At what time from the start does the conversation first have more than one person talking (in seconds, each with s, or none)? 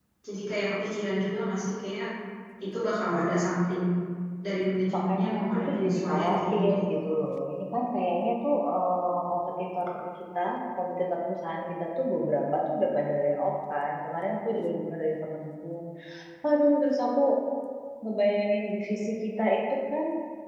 4.9 s